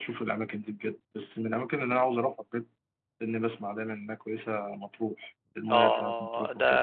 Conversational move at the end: taking over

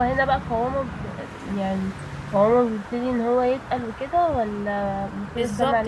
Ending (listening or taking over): taking over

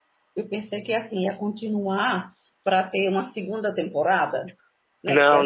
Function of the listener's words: listening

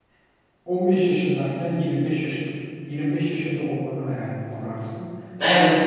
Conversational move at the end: listening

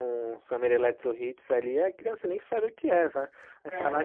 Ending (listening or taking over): listening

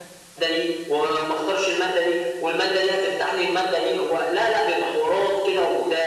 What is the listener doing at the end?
listening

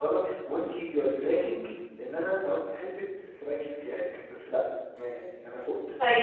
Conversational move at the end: taking over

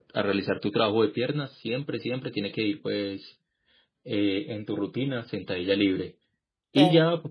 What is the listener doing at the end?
listening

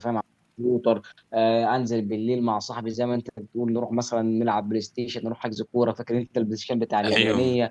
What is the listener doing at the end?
taking over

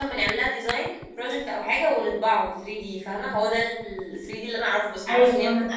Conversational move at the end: taking over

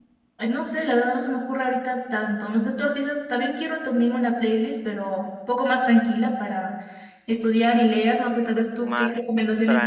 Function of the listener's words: taking over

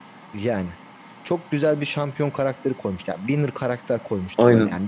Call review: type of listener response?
listening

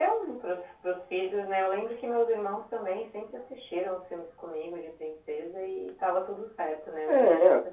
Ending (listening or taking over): listening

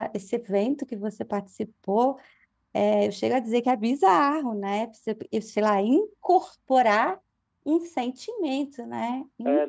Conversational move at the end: taking over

